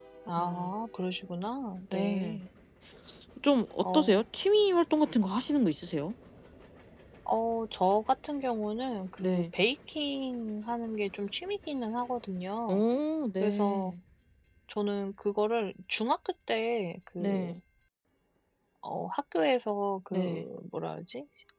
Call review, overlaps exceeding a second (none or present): none